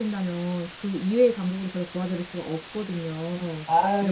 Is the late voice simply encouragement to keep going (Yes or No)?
No